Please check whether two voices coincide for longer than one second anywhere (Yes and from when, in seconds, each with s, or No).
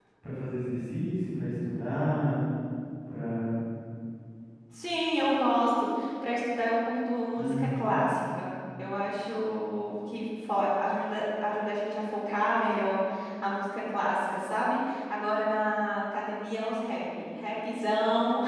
No